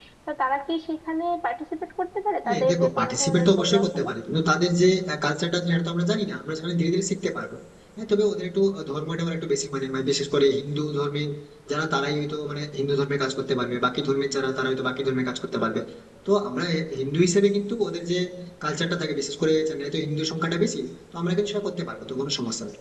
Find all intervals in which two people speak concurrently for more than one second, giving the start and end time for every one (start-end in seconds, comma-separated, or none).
2.5-4.1